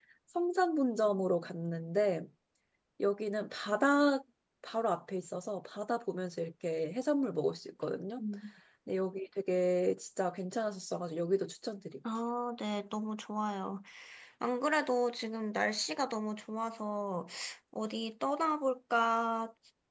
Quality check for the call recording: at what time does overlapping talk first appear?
none

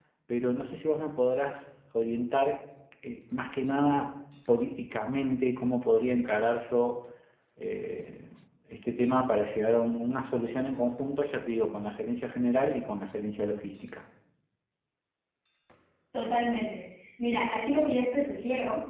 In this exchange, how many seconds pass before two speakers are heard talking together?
none

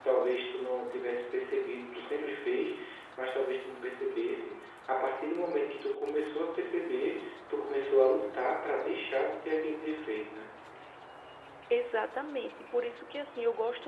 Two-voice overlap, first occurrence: none

